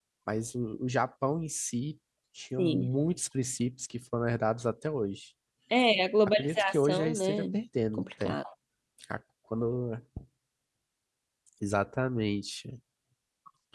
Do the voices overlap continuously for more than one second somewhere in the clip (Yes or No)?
Yes